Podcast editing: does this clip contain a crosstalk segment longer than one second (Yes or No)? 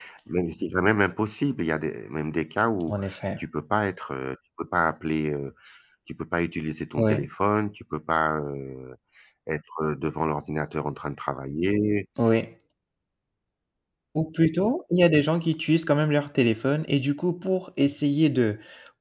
No